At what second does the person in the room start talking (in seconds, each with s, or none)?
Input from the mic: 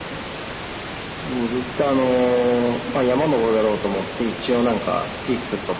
none